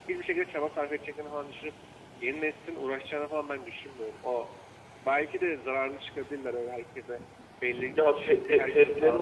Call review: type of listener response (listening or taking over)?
taking over